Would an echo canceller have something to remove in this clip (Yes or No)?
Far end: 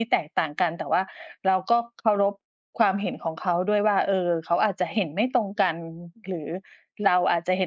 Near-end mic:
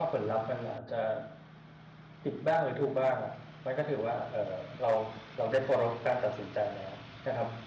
No